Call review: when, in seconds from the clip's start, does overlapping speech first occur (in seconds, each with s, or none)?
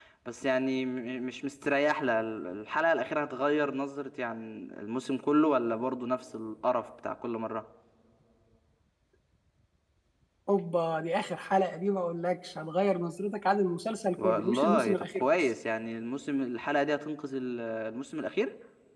14.2 s